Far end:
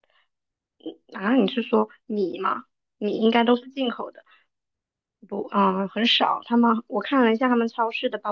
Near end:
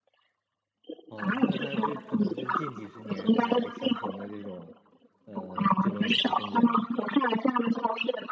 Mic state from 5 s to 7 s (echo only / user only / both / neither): both